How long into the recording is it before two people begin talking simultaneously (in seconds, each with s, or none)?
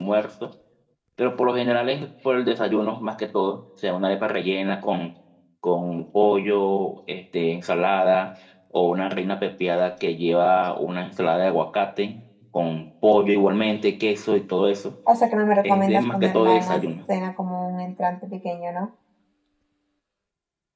15.6 s